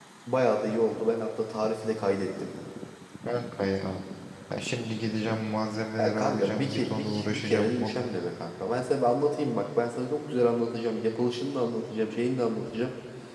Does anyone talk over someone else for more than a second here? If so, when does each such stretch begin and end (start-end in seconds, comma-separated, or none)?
6.0-8.0